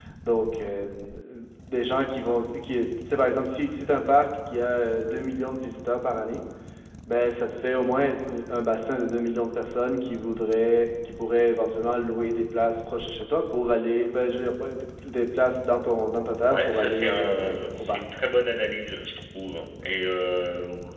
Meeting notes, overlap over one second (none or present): present